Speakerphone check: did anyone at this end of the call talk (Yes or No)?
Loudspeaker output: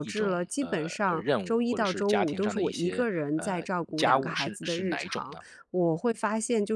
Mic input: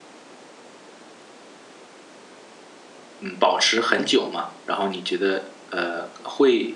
Yes